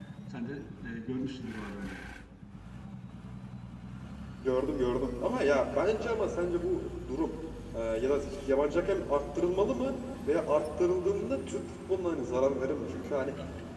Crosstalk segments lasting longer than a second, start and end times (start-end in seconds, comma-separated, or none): none